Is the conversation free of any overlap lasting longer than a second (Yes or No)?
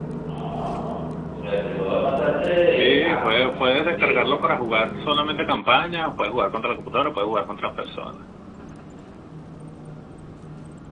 No